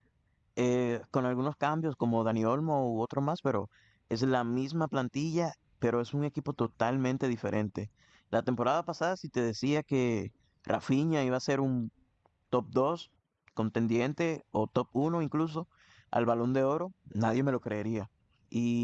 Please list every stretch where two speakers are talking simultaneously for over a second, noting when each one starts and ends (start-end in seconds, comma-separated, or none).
none